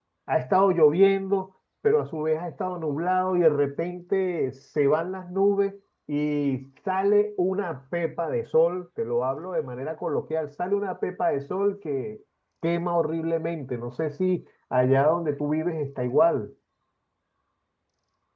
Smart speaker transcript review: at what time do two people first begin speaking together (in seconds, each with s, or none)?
none